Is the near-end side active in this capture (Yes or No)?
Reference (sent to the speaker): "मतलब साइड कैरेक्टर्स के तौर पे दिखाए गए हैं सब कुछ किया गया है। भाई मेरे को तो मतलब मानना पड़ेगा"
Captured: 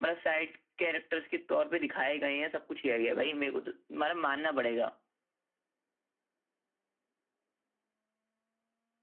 No